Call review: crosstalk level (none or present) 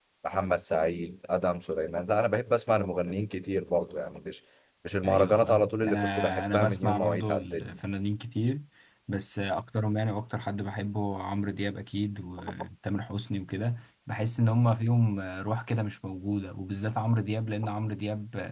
present